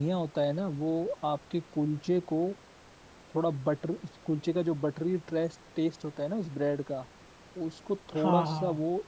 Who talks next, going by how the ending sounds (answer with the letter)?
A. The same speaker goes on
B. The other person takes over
A